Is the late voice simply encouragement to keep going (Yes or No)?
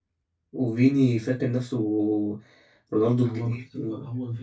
No